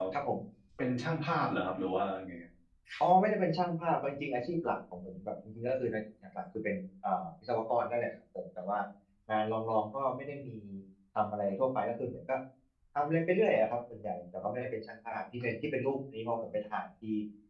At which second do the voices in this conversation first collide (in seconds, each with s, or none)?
none